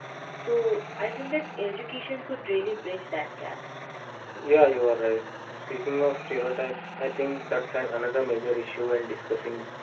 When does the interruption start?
none

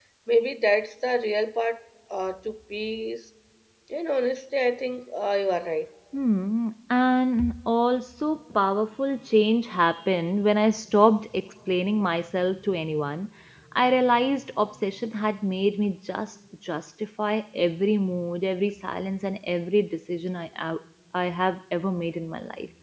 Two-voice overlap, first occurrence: none

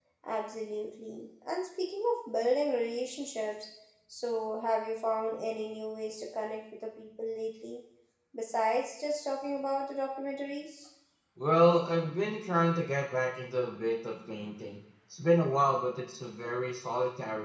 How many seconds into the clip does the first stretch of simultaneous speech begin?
none

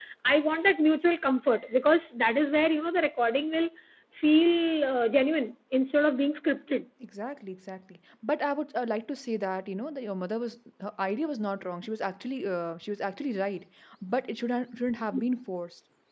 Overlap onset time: none

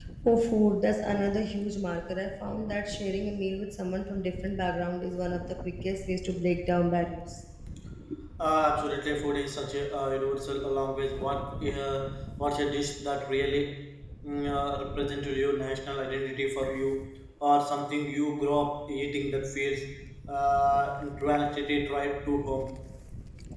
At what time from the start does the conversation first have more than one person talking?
none

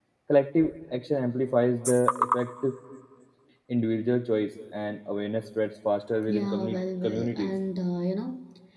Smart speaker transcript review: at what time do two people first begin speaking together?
6.3 s

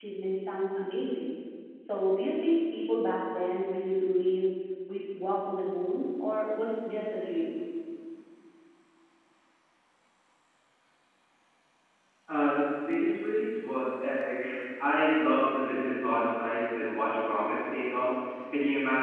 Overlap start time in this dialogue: none

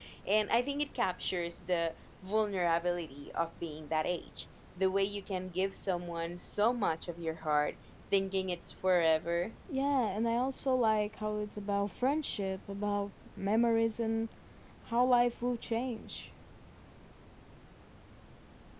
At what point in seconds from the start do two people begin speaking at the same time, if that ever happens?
none

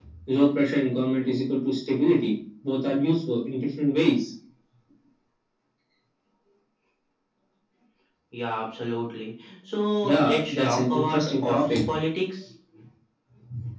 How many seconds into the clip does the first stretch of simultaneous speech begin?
10.0 s

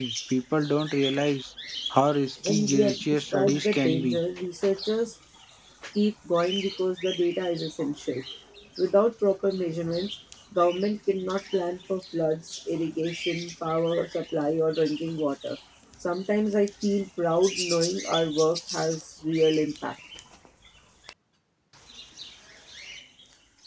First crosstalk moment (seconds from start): 2.5 s

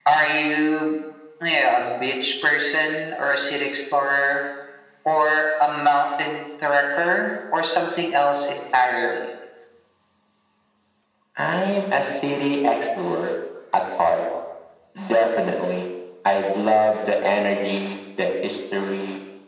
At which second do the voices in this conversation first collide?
none

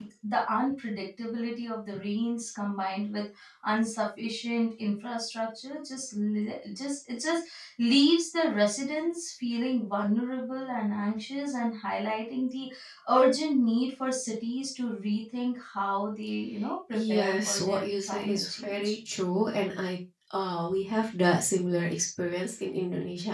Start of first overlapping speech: 16.9 s

